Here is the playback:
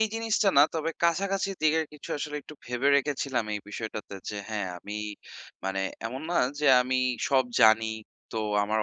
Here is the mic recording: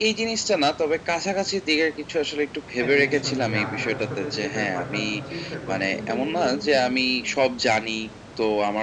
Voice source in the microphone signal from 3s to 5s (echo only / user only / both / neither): both